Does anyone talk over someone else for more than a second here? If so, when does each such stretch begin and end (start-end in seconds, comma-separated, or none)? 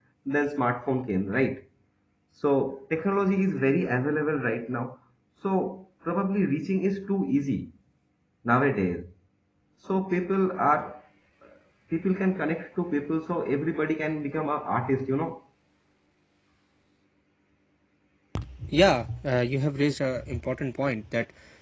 none